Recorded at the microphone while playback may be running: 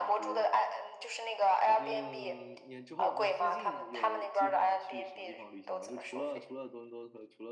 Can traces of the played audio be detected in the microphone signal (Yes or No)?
Yes